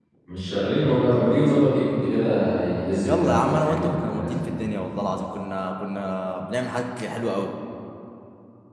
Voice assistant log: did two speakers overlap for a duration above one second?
Yes, from 3.0 s

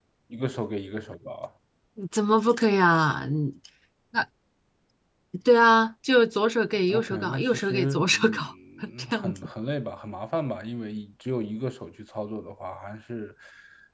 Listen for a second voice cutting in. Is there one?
Yes, from 6.9 s

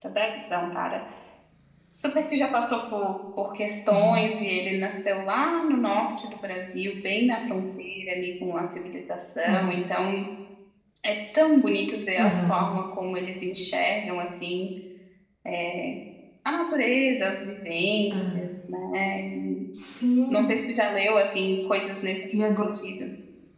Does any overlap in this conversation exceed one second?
No

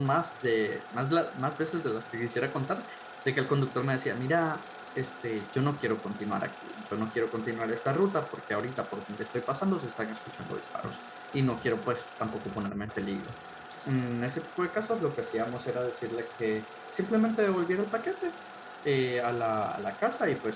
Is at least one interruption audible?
No

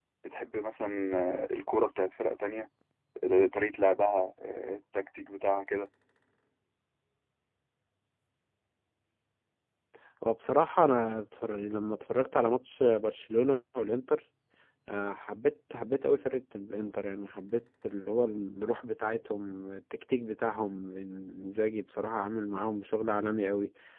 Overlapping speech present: No

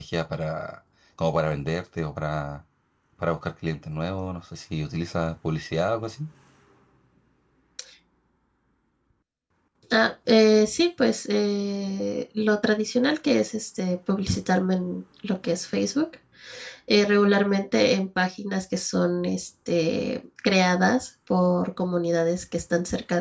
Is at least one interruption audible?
No

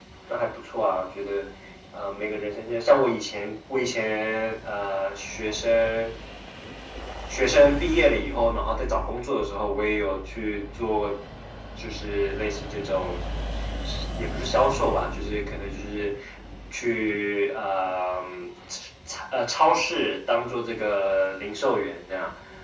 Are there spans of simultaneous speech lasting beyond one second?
No

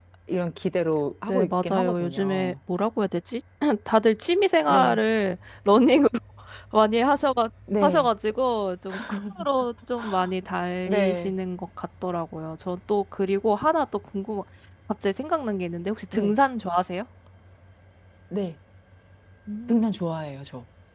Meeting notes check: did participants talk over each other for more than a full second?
Yes, from 1.3 s

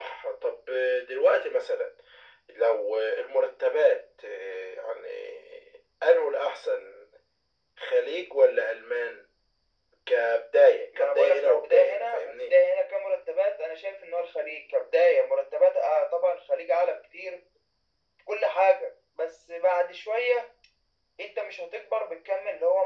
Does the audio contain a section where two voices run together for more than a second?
Yes, from 10.9 s

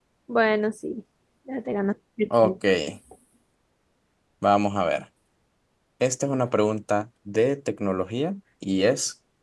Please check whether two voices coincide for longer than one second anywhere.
No

